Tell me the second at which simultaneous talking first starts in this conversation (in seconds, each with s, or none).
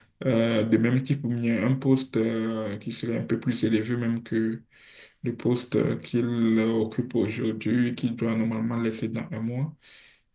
none